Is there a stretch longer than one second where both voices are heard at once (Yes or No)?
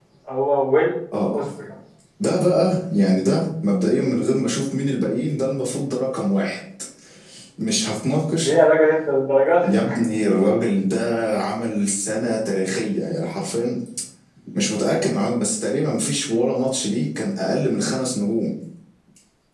No